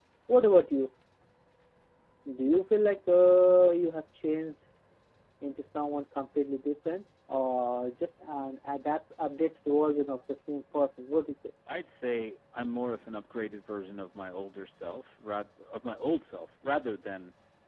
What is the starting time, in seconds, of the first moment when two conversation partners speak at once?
none

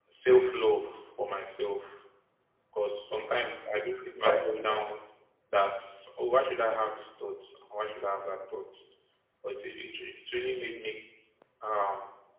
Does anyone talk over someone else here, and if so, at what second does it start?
3.2 s

